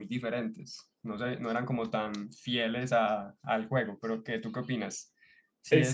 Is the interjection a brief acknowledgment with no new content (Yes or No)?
No